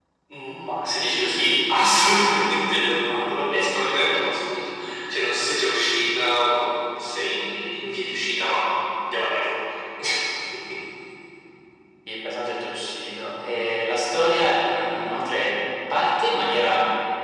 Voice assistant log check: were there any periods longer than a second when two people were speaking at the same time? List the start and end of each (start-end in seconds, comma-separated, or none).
none